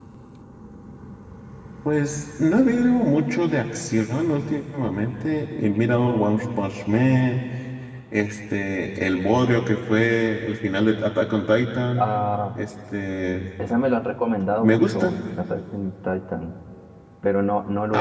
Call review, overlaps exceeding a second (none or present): none